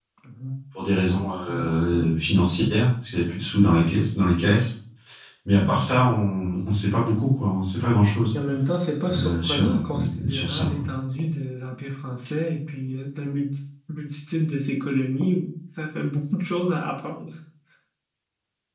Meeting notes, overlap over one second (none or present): present